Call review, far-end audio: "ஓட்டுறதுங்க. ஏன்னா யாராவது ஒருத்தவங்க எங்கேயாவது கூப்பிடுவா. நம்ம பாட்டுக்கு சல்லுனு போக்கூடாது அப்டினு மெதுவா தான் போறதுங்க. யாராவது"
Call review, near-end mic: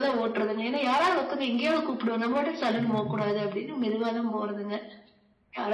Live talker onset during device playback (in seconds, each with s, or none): 2.8 s